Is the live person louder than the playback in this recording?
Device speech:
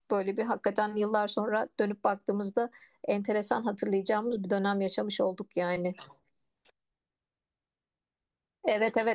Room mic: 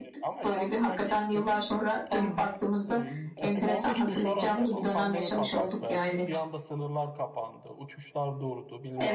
No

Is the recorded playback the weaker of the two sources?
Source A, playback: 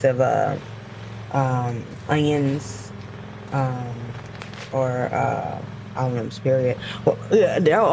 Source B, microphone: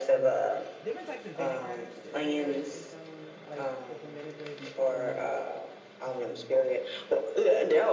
No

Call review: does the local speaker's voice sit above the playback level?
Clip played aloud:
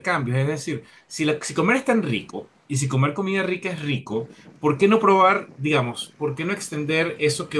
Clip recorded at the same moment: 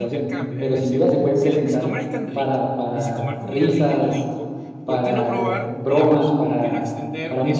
Yes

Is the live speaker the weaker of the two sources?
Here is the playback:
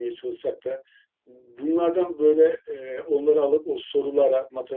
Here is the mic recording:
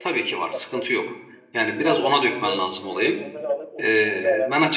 No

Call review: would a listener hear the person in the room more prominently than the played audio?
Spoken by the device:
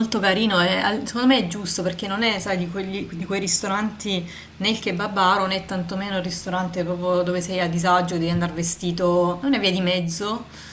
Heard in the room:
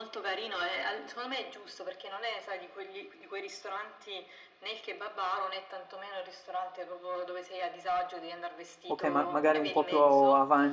Yes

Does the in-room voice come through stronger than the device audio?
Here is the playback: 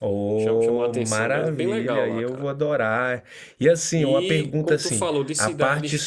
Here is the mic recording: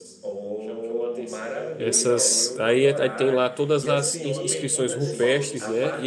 Yes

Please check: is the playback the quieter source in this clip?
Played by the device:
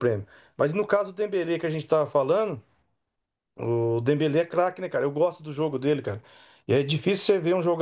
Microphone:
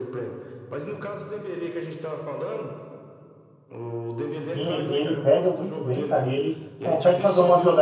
Yes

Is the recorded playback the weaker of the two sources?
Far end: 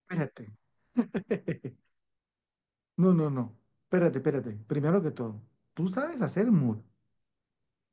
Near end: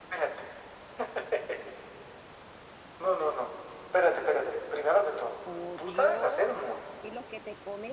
No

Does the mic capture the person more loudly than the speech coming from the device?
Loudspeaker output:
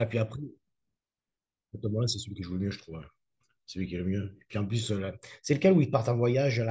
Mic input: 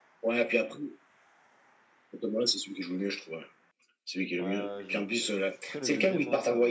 No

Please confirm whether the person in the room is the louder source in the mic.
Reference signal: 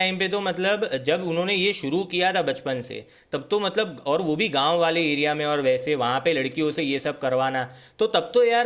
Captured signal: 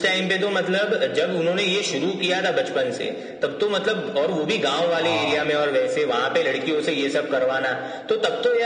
No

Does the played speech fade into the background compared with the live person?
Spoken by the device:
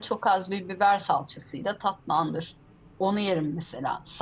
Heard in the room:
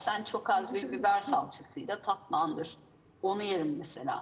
No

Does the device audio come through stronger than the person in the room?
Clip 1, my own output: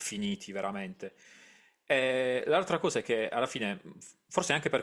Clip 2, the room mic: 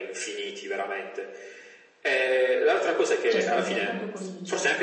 Yes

